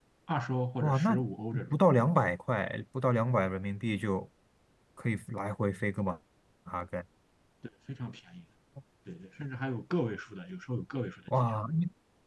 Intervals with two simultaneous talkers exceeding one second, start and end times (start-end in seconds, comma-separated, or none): none